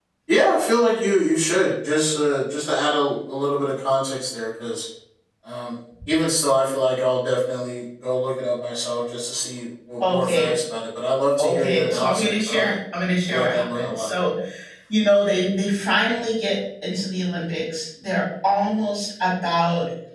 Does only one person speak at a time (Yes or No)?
No